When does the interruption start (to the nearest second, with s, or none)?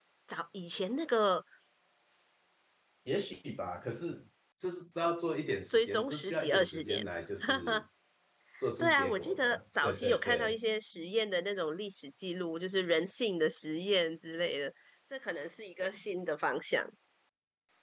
6 s